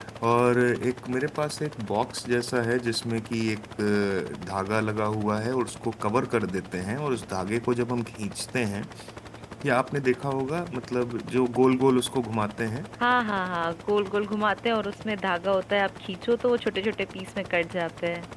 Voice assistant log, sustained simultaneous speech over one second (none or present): none